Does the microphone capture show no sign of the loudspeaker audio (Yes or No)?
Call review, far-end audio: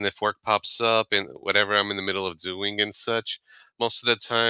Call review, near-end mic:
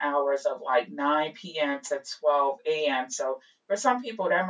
Yes